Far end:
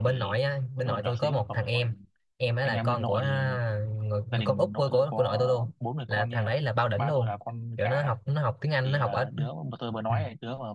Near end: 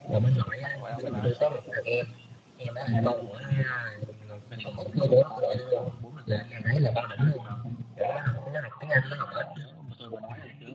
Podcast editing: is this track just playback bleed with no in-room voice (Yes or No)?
No